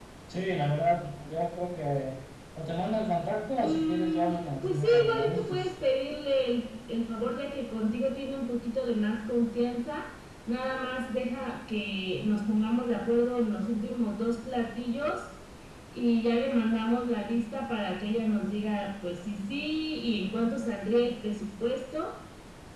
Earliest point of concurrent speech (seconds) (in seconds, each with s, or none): 3.6 s